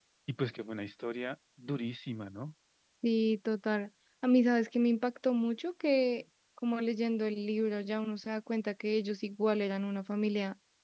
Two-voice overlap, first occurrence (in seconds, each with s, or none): none